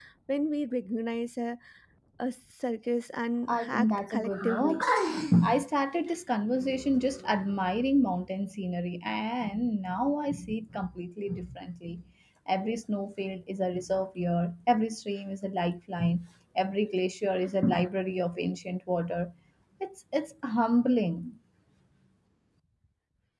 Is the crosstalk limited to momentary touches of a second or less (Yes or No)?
No